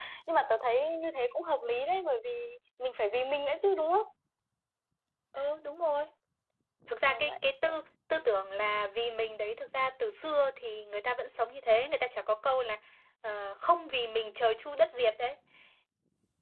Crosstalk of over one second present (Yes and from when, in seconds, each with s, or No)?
No